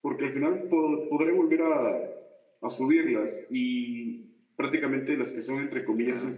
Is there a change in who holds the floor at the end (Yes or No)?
No